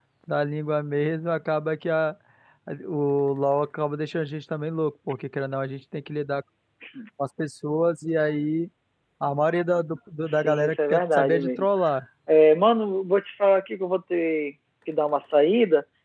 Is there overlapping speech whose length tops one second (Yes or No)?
Yes